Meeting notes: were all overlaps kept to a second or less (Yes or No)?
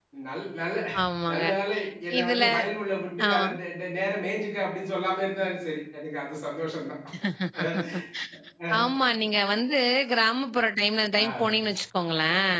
Yes